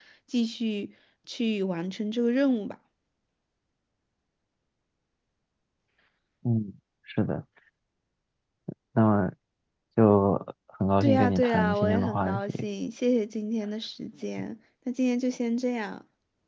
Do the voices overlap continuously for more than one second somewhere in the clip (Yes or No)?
Yes